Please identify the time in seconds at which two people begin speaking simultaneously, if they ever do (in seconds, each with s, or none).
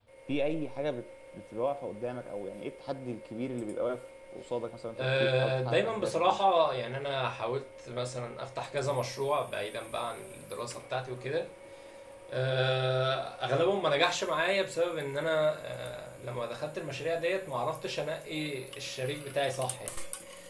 5.0 s